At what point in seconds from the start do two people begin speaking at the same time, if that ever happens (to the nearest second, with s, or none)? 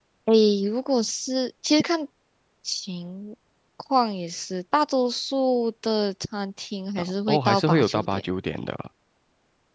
7 s